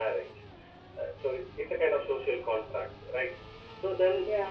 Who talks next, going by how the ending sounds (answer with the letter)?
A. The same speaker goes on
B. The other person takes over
A